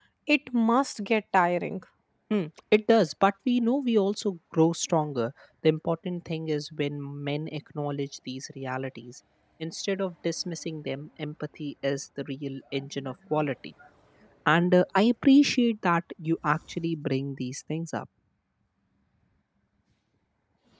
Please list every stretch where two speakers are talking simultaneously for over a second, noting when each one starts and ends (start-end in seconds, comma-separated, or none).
none